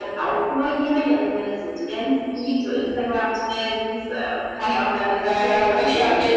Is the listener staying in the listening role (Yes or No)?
No